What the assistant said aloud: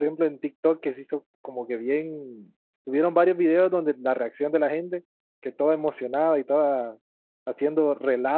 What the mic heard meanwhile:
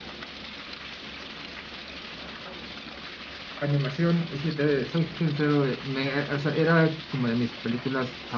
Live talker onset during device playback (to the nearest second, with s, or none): 4 s